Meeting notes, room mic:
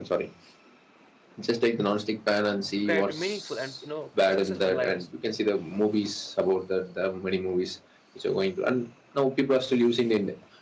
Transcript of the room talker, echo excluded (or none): required to meaningful and you know successful lives